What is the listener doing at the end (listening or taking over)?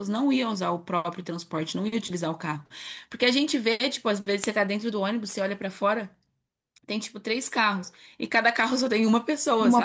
listening